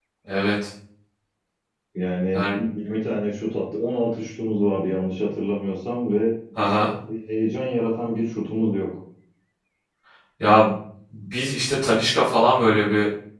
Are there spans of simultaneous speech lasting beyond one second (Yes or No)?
No